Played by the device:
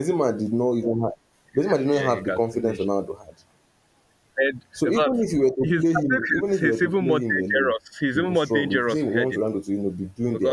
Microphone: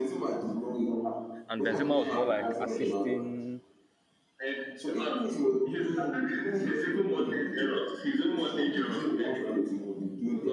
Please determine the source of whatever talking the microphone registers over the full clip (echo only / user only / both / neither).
both